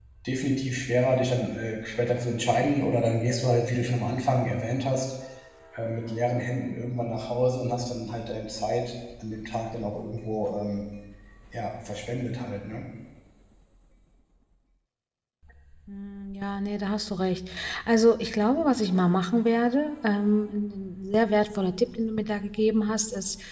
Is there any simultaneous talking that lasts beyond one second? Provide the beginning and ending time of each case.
none

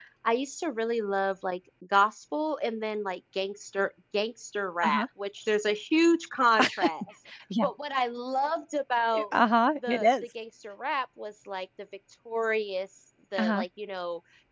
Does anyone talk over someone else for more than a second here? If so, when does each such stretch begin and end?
none

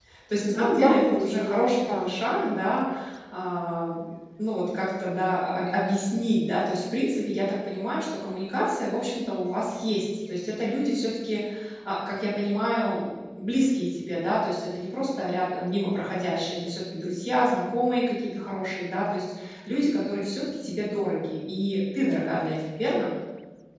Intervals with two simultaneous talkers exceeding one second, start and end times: 0.5-2.1

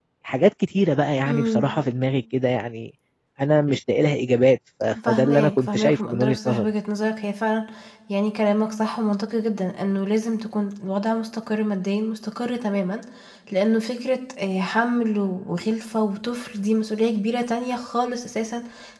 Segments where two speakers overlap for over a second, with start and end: 5.1-6.7

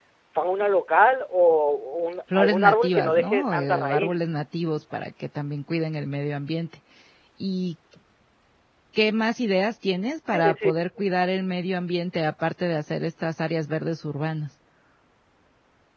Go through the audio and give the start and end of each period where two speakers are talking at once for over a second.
2.4-4.2

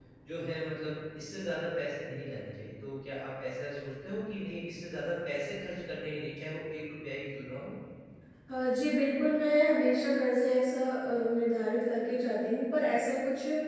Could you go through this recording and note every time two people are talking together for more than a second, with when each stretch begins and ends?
none

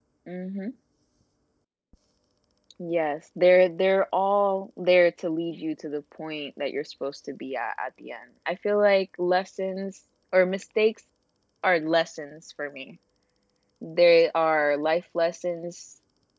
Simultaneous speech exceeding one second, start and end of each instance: none

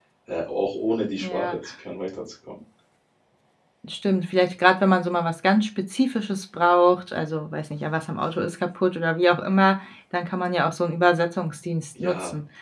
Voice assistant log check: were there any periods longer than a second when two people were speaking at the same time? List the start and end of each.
none

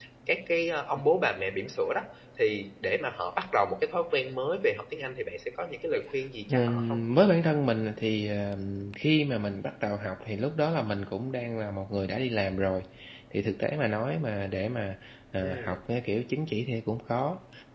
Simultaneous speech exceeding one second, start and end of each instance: none

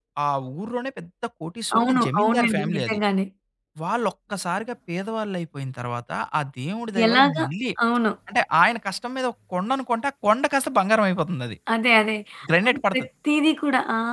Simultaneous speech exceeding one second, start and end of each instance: 1.8-3.0

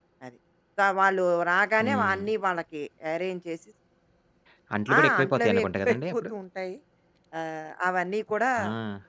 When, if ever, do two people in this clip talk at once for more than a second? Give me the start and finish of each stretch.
5.0-6.2

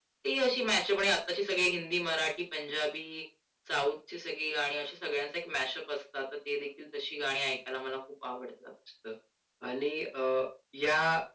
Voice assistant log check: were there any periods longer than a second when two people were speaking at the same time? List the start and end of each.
none

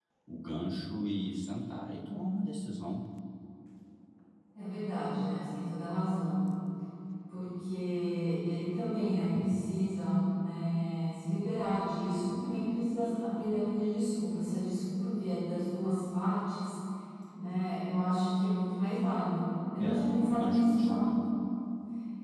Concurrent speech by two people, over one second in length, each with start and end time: 19.8-21.1

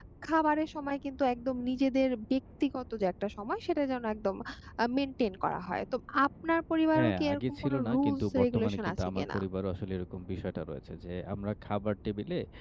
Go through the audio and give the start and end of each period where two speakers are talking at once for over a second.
6.9-9.4

